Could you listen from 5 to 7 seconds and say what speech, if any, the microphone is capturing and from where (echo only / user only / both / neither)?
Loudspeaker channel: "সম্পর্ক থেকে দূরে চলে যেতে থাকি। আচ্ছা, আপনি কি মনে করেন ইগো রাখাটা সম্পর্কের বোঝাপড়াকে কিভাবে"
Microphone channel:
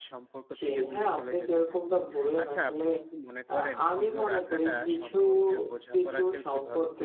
both